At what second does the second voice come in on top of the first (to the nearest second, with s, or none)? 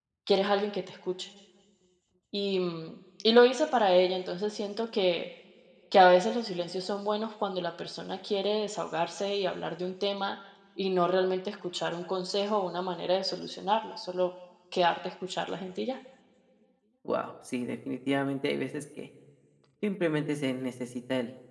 none